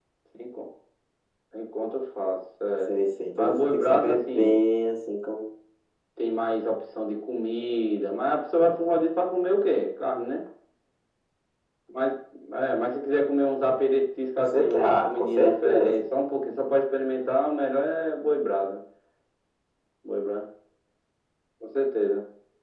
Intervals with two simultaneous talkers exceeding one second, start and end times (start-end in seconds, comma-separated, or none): 3.4-4.6, 14.4-16.0